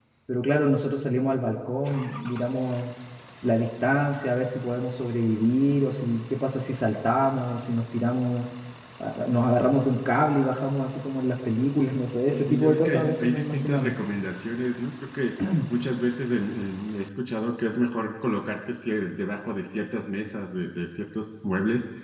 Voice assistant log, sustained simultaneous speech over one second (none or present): present